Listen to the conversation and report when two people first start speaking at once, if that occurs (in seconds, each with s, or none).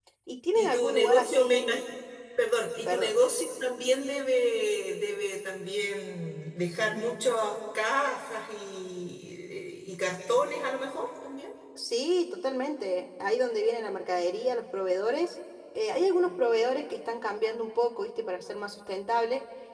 0.6 s